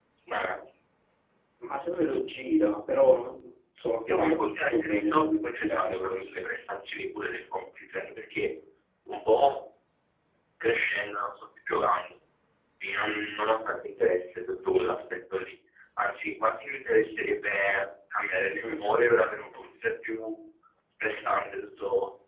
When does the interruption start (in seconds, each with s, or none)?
4.1 s